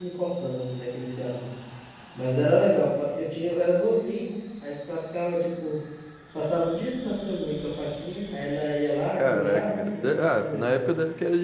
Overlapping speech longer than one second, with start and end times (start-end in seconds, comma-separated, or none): 9.1-10.9